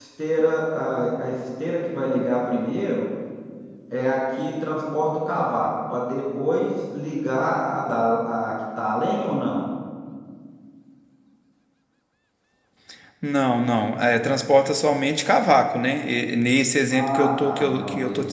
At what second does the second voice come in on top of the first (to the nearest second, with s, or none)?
17 s